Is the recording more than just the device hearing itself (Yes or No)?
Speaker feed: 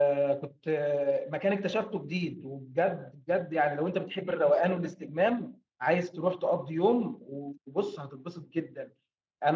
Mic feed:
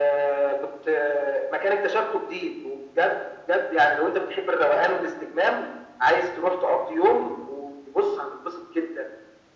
No